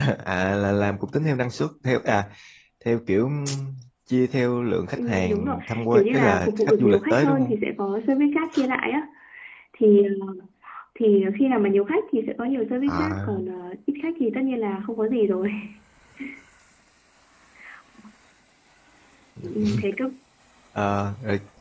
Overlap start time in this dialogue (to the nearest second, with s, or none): 5 s